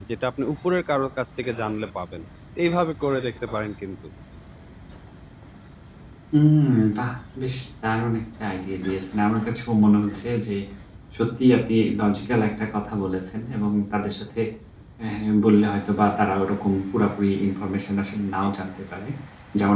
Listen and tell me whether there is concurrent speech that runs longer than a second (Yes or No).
No